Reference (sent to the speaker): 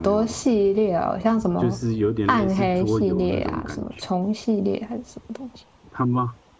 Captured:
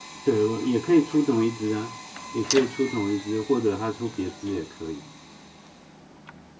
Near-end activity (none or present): present